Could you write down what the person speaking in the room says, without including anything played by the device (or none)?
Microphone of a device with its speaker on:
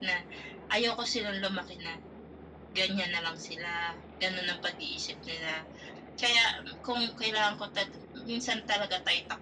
none